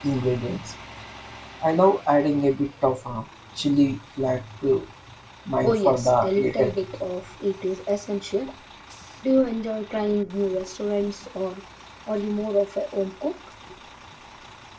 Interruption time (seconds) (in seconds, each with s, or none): 5.6 s